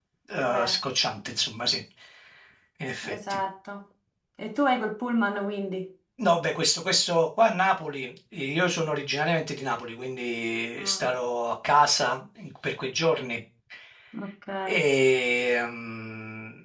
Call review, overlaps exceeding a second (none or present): none